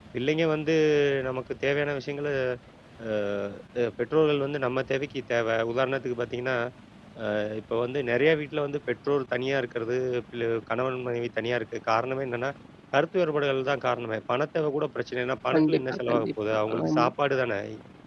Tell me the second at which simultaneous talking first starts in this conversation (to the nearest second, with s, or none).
16 s